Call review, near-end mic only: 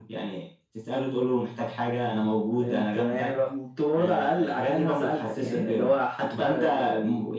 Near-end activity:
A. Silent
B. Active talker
A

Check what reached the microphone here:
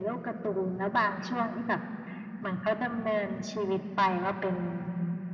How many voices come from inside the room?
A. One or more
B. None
B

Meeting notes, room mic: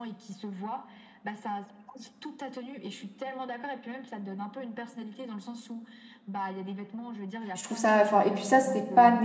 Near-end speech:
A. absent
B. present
B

